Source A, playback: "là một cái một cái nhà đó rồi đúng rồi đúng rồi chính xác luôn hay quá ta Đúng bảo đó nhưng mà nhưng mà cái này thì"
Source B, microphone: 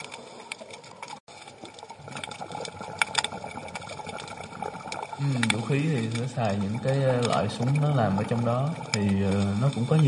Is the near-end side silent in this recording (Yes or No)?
No